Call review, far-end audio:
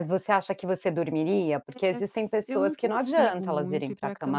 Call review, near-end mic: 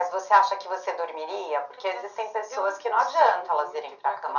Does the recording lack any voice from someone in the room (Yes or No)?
Yes